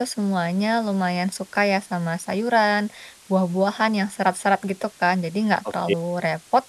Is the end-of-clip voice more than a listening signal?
No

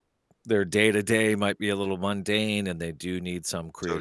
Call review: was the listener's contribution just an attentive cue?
Yes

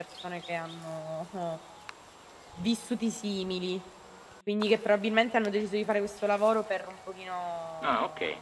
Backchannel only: Yes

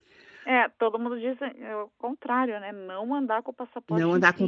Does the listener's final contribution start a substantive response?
Yes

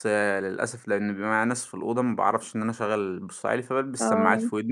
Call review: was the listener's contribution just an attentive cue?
Yes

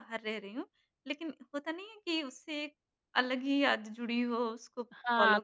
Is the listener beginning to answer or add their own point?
Yes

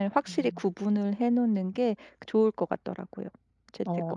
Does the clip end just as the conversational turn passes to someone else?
Yes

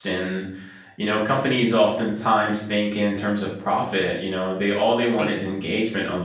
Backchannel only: Yes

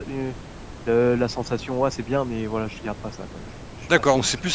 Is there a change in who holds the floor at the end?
Yes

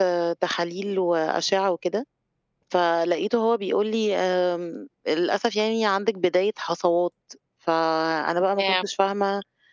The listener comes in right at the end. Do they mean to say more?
No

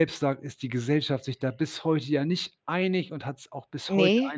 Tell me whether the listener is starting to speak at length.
No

